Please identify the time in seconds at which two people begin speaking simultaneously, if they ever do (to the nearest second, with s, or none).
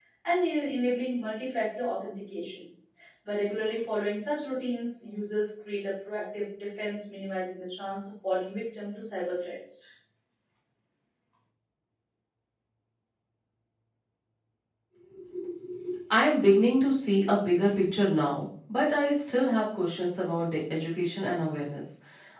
none